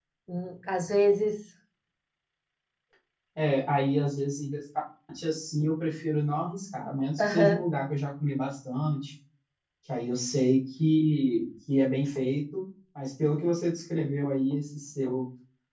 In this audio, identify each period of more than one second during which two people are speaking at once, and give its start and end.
none

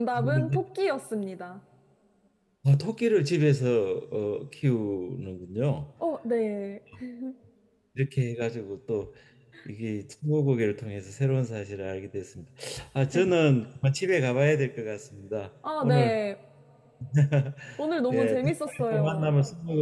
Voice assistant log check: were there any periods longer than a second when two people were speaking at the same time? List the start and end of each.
18.1-19.3

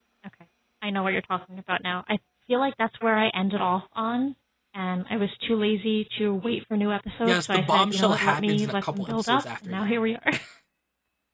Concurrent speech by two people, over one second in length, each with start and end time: 7.2-9.8

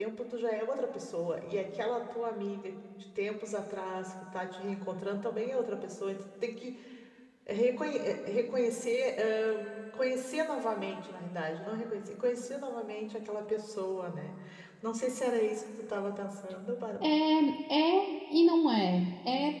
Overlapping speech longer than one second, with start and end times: none

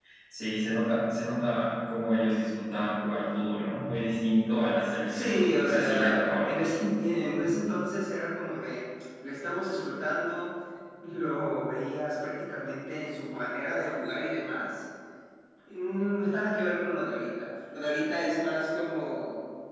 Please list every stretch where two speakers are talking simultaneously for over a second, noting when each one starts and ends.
5.1-6.5

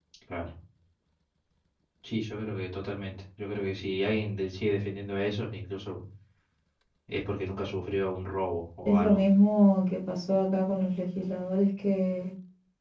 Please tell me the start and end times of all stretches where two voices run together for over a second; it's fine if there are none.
none

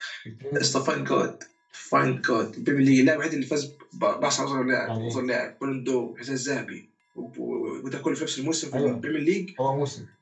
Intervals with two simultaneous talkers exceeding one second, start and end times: none

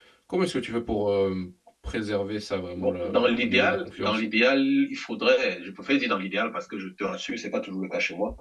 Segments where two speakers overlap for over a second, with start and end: 2.8-4.2

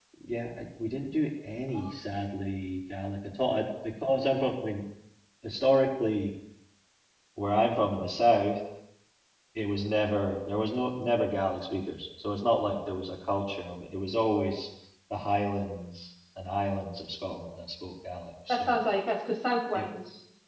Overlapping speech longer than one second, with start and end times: none

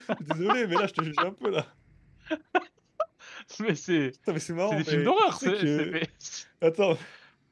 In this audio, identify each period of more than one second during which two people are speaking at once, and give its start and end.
4.7-6.0

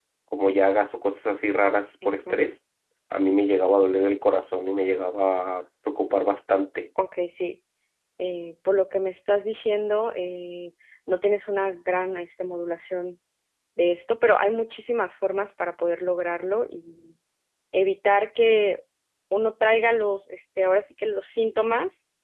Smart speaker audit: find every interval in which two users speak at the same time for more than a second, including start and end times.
none

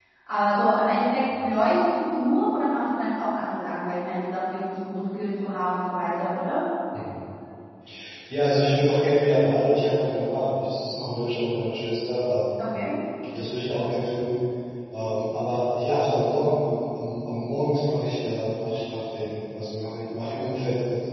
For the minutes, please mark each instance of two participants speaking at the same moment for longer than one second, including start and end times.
none

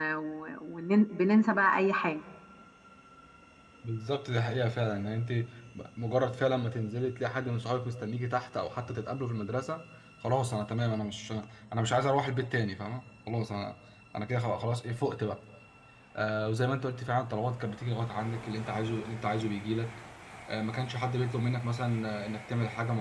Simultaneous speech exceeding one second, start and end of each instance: none

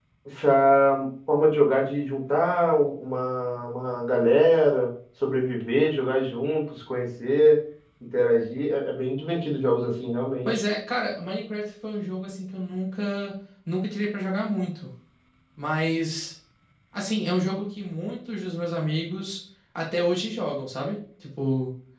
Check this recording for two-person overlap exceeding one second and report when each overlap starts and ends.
none

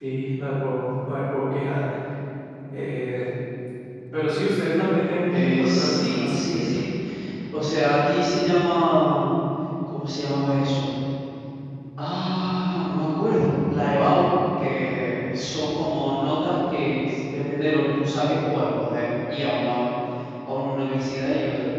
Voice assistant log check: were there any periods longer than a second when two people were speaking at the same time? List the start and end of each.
5.3-6.6

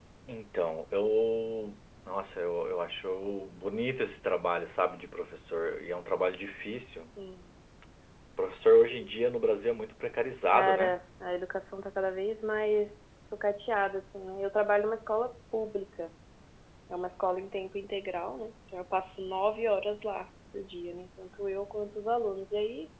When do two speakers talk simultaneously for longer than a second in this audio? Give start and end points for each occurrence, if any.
none

